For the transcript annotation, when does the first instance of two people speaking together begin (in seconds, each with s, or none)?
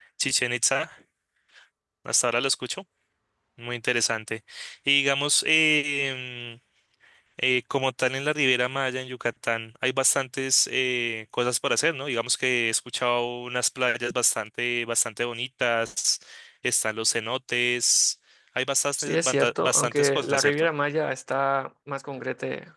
19.0 s